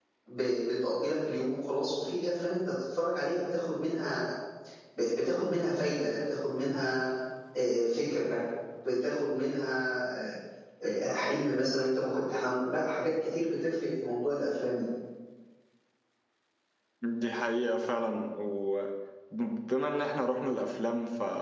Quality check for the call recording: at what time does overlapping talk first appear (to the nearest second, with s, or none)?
none